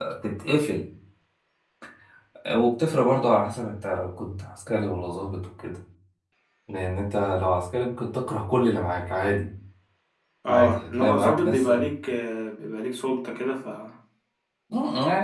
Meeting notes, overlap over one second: present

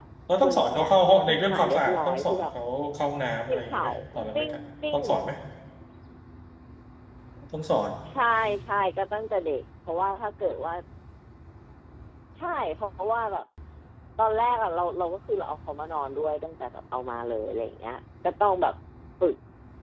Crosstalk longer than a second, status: present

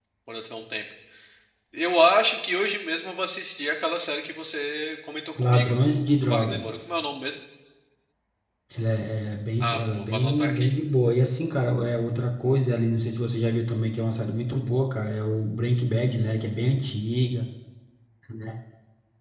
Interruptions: present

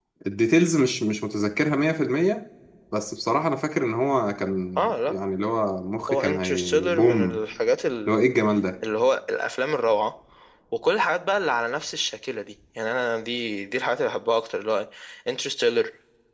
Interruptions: present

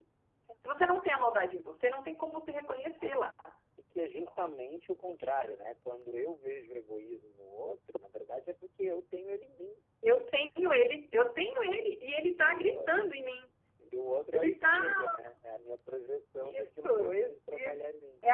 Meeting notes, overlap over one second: present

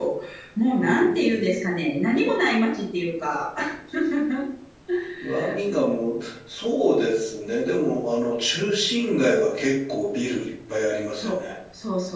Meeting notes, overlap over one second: none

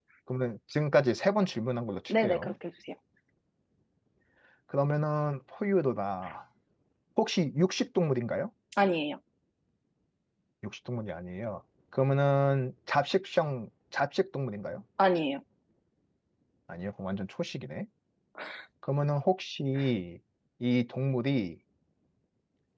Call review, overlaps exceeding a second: none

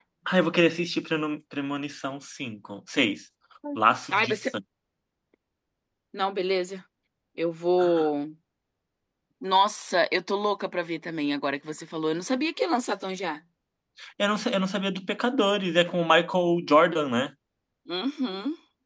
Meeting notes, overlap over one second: none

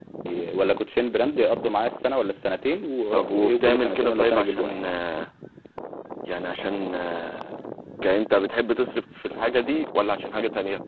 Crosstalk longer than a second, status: present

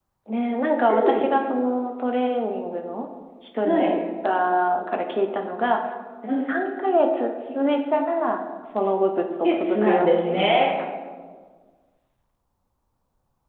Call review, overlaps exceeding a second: present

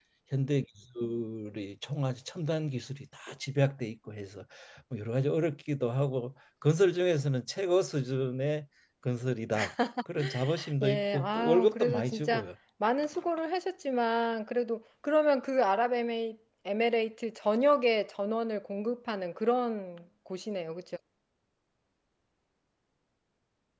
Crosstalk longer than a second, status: present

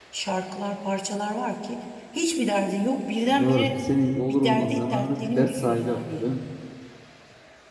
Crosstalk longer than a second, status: present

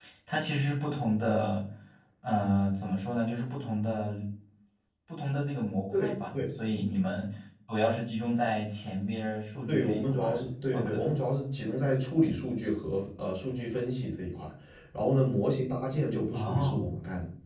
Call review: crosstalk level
present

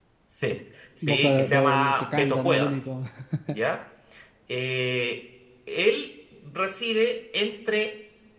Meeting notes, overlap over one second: present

